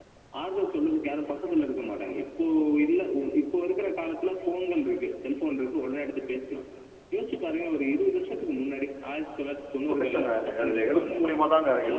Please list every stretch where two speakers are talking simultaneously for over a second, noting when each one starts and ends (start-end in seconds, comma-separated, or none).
9.8-11.2